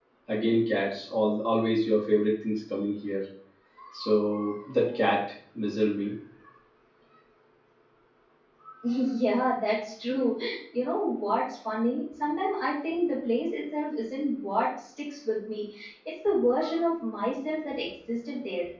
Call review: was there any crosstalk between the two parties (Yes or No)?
No